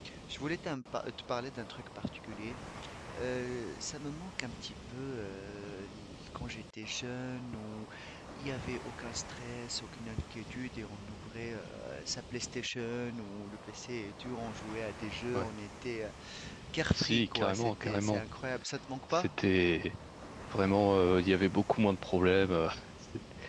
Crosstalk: present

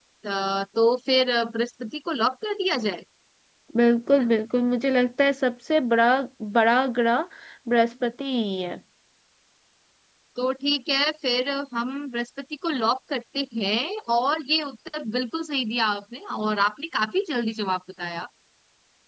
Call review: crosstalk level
none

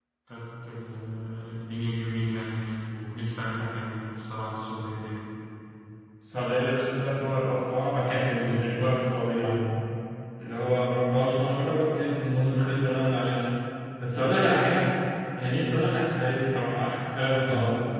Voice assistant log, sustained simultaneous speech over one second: none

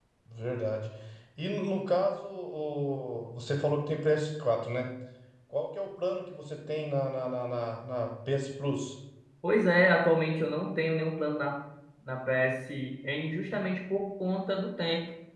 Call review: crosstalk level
none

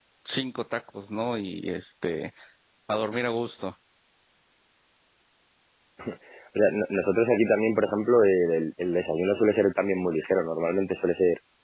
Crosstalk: none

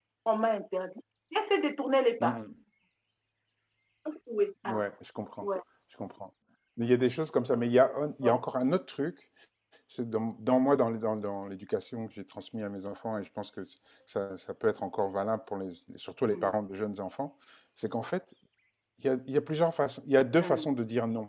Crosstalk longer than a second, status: none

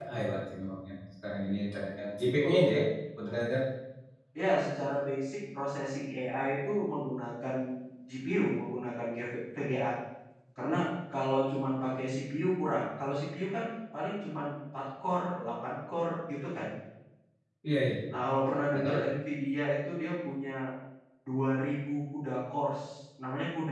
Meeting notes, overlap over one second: none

